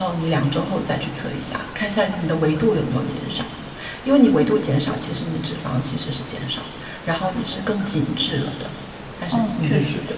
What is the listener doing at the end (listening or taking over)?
taking over